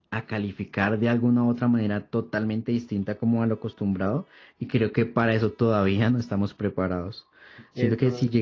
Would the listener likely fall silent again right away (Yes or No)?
Yes